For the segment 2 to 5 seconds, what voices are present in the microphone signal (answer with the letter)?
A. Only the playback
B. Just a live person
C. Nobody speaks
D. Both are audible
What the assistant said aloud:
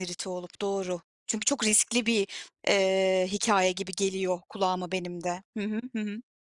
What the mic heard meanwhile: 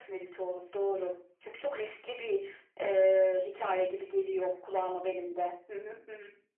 A